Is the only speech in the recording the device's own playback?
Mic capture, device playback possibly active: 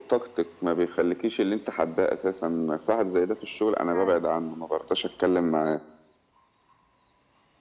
No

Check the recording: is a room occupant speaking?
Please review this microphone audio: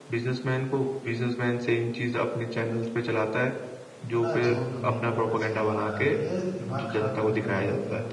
Yes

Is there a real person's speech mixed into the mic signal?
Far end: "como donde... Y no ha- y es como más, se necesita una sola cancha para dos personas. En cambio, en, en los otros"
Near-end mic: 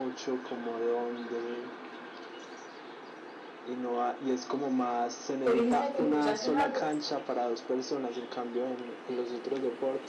Yes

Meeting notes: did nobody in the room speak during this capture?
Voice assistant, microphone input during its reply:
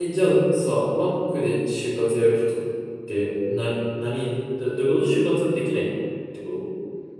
No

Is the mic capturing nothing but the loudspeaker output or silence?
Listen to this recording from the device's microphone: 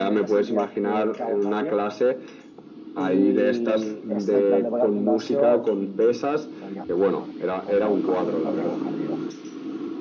No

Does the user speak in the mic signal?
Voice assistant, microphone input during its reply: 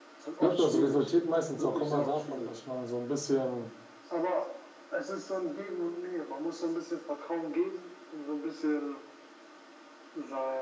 Yes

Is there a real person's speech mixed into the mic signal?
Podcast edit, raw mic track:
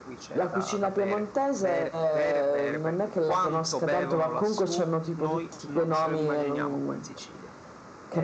No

